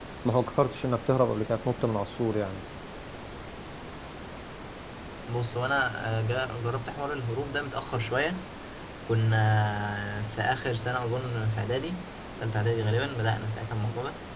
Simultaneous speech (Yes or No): No